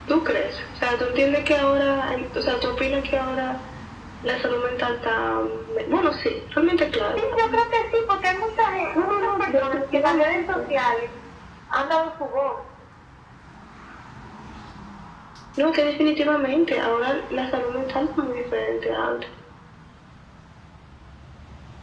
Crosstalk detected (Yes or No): Yes